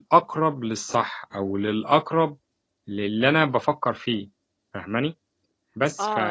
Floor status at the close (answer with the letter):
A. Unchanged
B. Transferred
B